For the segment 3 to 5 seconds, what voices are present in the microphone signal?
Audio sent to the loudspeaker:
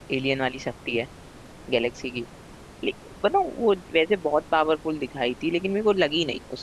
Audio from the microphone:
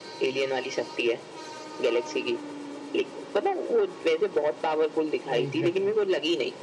echo only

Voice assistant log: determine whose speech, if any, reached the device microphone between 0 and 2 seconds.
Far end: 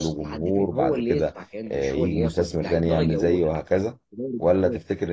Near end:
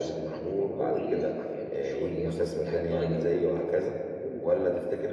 echo only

